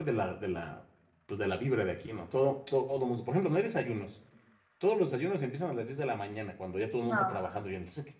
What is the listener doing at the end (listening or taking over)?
listening